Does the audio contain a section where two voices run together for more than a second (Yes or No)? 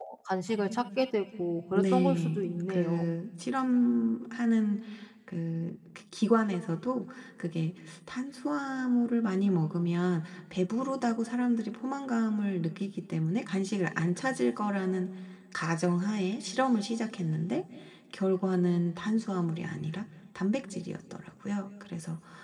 Yes